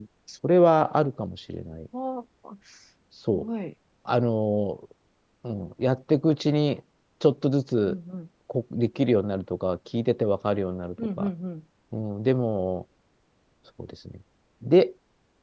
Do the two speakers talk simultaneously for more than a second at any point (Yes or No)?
No